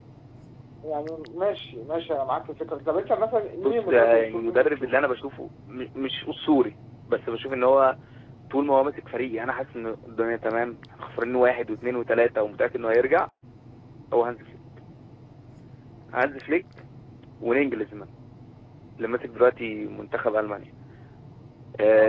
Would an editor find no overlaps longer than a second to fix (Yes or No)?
No